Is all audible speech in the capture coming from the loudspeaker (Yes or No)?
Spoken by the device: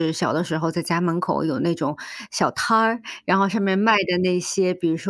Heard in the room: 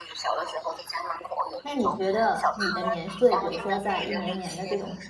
No